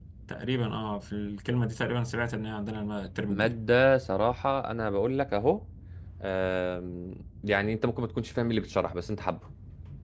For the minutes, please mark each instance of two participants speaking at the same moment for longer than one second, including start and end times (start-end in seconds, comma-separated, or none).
none